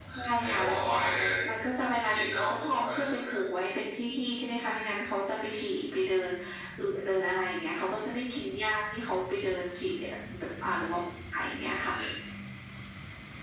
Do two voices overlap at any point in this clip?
Yes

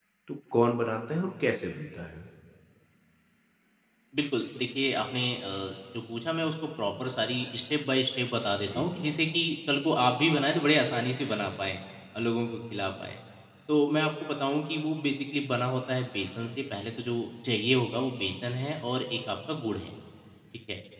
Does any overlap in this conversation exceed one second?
No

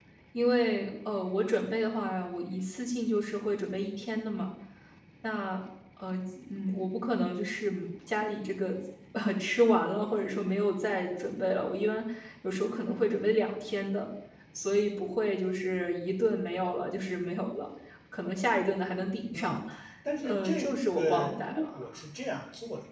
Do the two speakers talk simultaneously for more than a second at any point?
Yes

